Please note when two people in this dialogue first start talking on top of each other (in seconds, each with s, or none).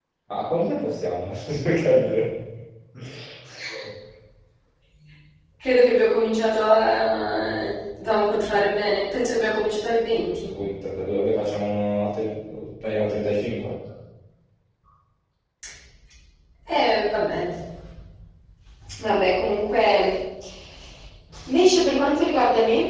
none